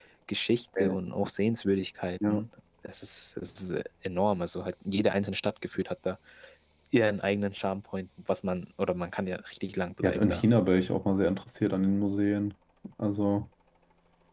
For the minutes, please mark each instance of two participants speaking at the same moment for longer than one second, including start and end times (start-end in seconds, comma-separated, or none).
none